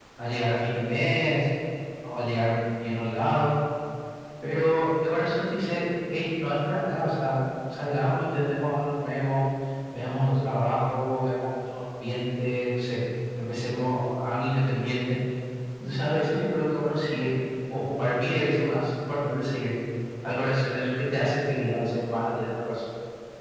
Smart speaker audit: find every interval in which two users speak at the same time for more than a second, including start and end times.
none

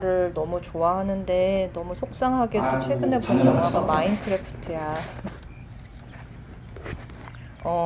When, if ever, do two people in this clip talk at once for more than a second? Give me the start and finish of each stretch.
2.5-4.0

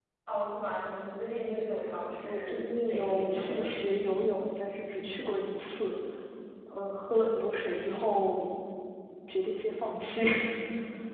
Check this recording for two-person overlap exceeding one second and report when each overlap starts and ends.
2.2-3.8

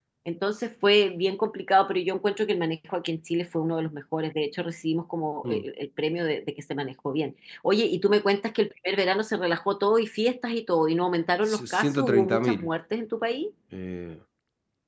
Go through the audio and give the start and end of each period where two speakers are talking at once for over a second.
11.4-12.7

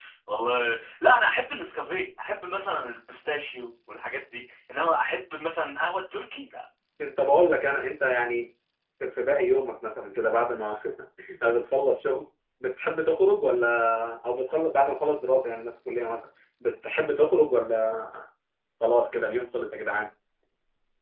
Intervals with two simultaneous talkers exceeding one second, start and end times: none

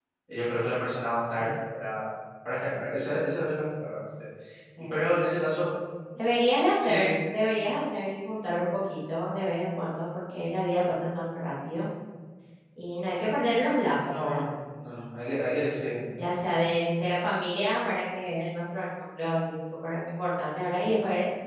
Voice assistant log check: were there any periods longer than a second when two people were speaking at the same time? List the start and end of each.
none

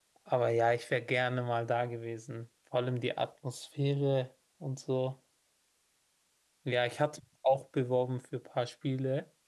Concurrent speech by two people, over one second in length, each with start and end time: none

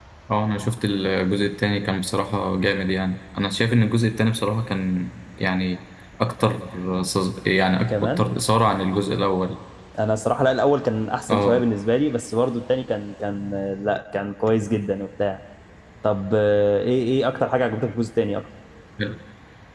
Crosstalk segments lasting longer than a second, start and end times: none

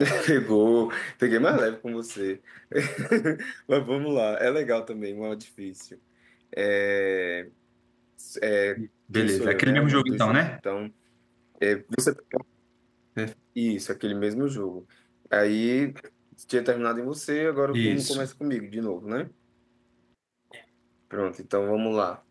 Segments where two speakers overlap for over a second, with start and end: 9.1-10.4

